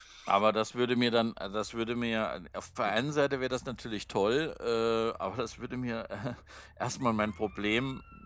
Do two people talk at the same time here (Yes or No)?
No